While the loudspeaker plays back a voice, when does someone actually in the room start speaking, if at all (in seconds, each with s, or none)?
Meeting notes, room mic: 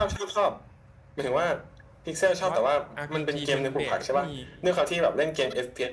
2.5 s